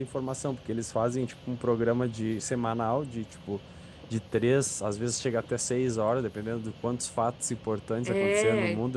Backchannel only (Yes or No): Yes